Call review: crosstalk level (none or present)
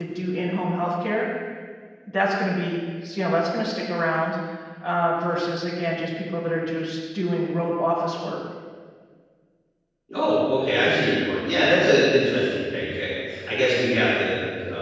none